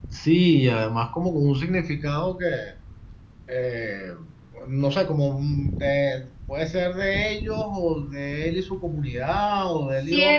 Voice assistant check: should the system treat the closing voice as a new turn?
Yes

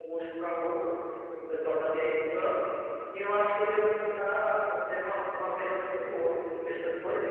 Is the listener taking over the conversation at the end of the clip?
Yes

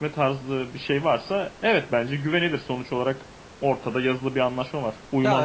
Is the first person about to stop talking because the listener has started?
Yes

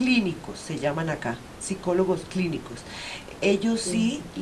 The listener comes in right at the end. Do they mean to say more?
No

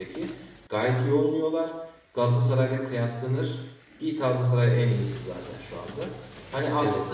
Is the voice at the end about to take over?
No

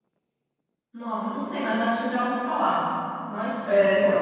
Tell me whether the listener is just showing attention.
No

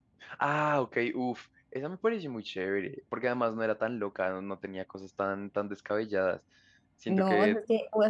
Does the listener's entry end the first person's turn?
Yes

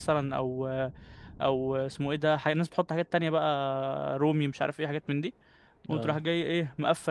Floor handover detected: No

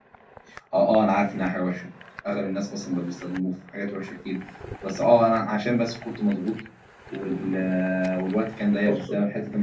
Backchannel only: Yes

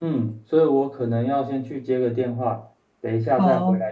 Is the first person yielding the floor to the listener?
No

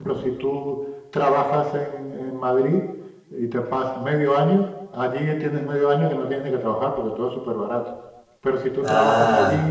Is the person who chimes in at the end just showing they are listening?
Yes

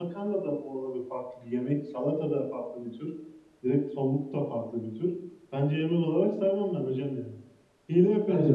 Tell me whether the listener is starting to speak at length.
Yes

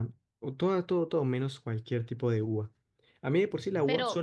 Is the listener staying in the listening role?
Yes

